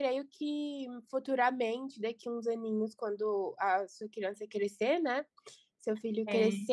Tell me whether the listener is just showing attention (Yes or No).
Yes